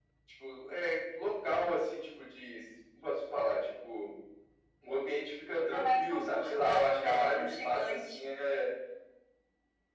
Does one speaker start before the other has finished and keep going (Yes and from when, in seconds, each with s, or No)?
Yes, from 5.5 s